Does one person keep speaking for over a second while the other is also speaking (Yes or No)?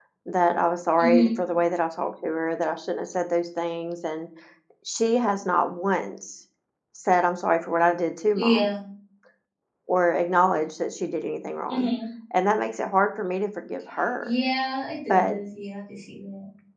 No